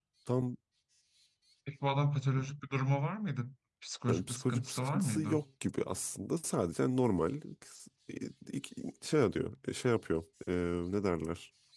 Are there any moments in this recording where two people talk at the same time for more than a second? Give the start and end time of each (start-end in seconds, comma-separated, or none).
4.1-5.4